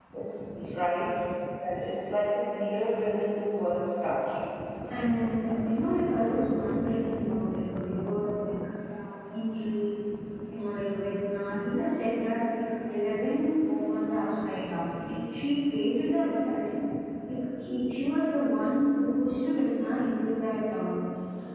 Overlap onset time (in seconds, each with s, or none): none